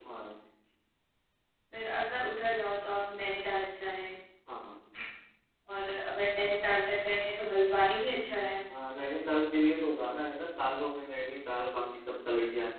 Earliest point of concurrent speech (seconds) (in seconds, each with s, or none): none